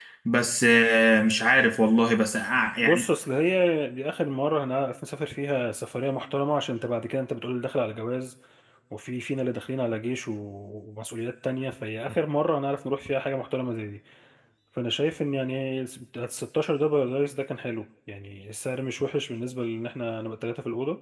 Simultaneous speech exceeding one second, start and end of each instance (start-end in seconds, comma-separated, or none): none